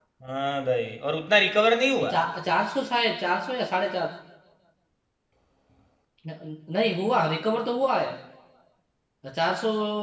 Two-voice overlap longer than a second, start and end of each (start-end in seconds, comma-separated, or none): none